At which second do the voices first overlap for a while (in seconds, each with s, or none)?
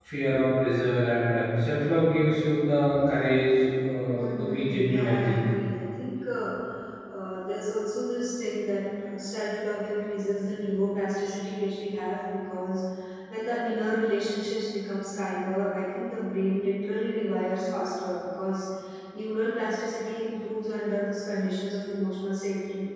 4.1 s